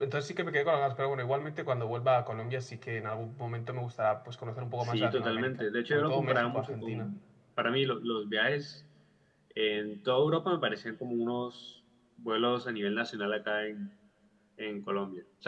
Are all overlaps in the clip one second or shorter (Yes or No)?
No